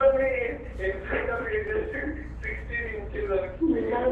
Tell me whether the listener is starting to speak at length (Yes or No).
Yes